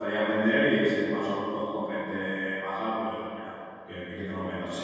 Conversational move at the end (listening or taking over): taking over